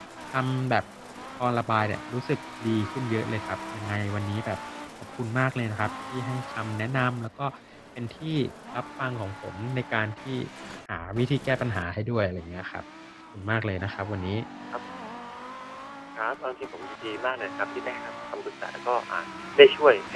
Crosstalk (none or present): none